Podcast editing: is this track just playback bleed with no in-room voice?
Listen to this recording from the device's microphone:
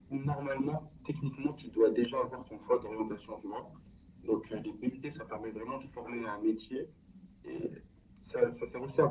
Yes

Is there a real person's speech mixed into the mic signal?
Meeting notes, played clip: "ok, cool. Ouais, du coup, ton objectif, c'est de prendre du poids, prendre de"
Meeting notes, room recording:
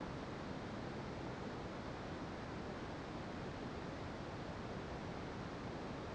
No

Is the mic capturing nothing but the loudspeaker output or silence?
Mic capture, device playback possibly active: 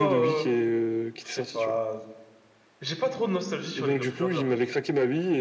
No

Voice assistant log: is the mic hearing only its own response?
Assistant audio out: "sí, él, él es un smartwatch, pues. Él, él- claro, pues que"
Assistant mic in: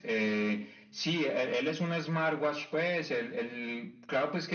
Yes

